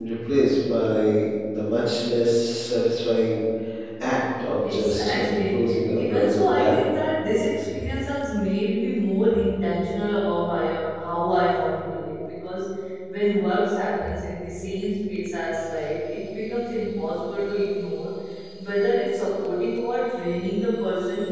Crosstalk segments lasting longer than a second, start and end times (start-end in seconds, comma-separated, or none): 4.6-6.8